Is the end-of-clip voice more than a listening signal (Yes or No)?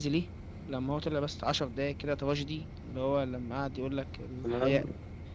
No